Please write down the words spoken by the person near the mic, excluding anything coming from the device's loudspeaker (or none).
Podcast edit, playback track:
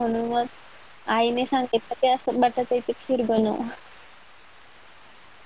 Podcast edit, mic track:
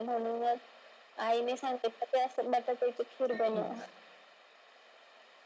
हम्म.